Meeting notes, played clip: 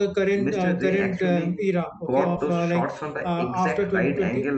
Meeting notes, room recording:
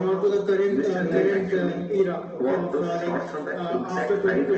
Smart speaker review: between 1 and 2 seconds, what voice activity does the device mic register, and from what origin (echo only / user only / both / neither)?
both